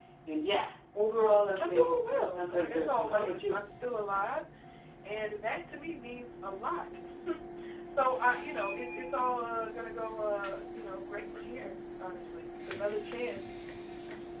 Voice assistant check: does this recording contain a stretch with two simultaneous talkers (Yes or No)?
Yes